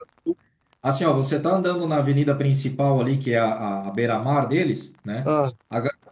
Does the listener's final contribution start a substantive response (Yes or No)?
No